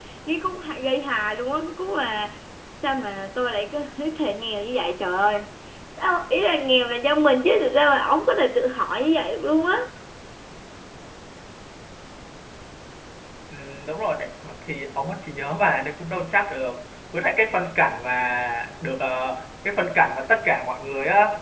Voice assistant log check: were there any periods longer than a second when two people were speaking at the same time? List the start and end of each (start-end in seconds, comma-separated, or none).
none